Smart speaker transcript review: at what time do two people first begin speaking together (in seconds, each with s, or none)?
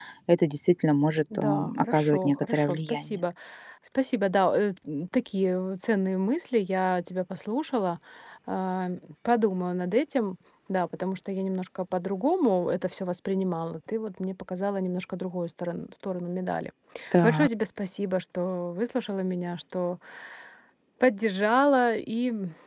1.4 s